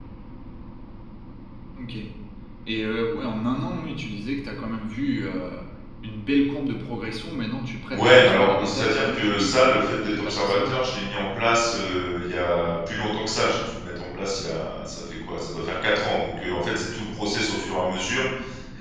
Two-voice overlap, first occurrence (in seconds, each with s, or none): 7.9 s